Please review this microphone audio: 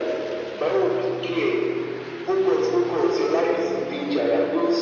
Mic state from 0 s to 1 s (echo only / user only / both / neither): echo only